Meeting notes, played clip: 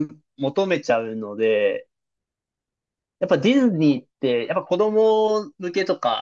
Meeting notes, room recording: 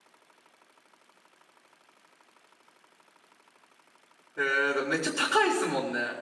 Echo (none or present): none